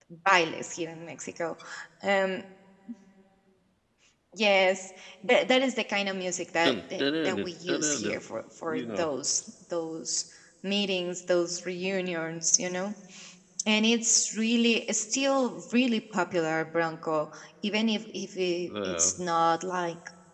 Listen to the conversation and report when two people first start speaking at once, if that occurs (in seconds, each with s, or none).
6.6 s